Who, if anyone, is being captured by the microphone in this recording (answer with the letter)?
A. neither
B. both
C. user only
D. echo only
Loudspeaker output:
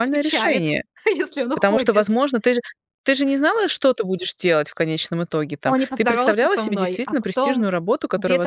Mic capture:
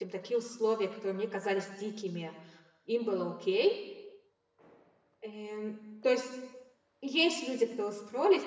C